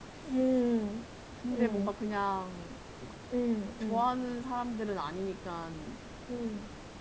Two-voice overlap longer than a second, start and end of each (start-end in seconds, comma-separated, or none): none